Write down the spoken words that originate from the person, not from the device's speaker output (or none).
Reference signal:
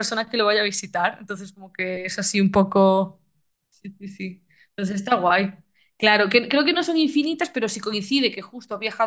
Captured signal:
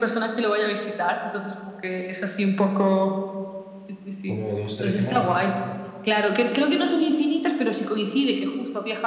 como dos, tres semanas.